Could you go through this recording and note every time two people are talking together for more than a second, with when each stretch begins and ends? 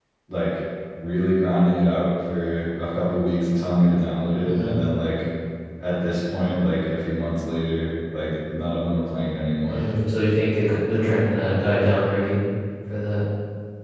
none

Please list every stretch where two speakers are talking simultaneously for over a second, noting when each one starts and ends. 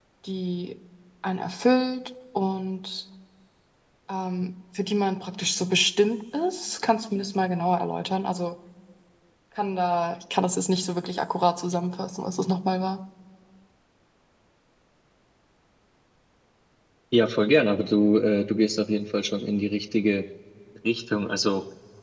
none

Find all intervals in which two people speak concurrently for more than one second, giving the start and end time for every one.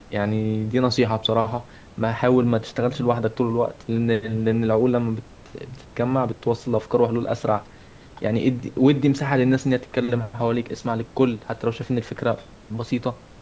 none

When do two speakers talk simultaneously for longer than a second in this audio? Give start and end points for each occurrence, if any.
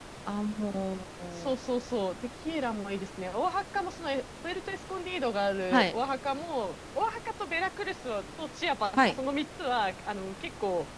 none

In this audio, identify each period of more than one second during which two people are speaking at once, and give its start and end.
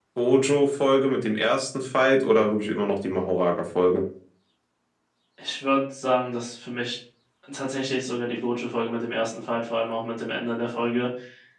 none

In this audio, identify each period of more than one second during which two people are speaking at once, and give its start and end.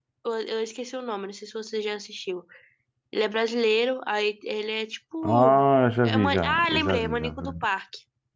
6.0-7.3

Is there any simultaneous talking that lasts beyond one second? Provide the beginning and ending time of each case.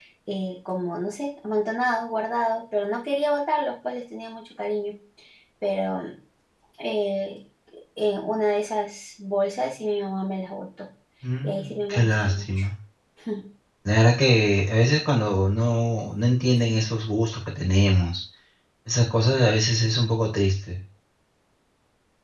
11.4-12.6

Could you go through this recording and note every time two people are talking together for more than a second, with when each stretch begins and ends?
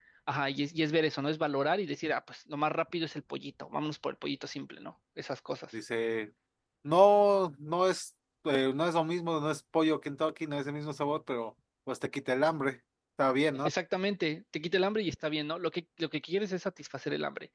none

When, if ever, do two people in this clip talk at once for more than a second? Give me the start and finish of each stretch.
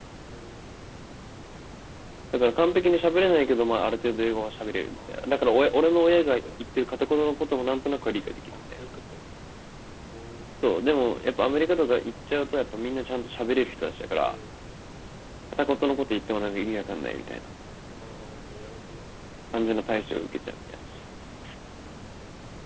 none

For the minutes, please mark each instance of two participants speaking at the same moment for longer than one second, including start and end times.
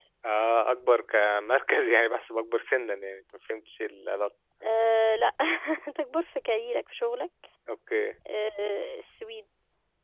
none

